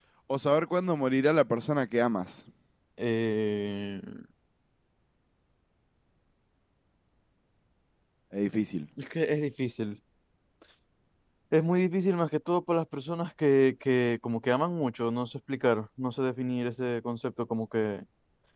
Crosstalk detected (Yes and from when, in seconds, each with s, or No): No